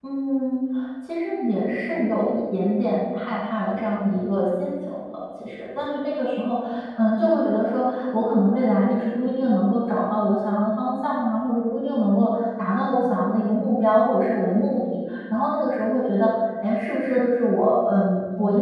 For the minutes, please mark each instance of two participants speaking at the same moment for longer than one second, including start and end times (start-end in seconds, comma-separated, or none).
none